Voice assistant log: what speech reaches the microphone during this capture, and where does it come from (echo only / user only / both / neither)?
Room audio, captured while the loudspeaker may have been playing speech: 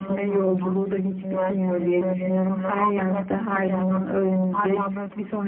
echo only